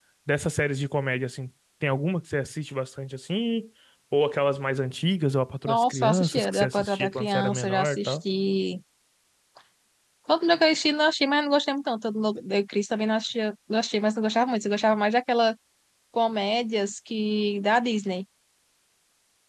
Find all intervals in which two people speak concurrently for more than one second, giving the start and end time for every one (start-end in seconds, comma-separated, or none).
5.7-8.2